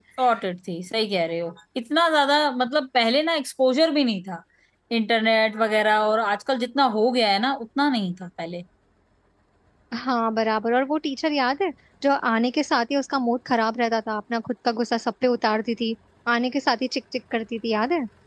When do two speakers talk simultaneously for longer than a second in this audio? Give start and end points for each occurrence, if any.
none

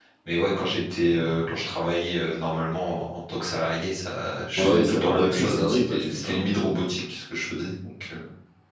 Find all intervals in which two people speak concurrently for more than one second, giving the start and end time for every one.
4.6-6.5

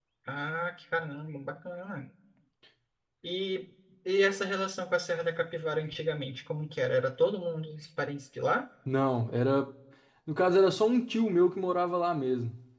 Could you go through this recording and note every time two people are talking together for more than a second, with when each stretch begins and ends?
none

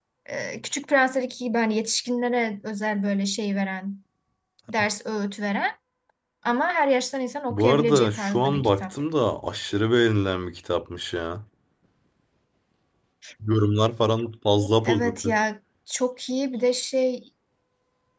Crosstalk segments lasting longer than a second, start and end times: 7.5-8.9

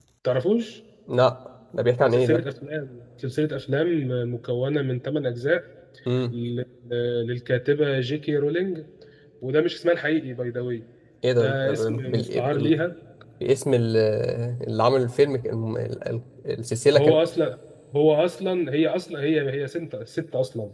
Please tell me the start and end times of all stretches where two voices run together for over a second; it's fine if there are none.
11.4-12.8

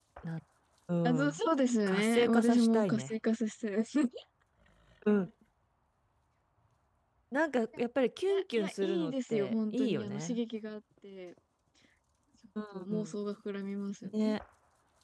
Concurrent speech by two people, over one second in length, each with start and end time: 1.9-3.1, 8.3-10.4

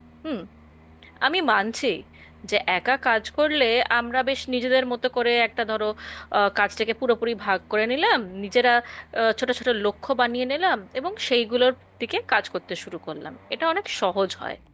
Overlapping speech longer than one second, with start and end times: none

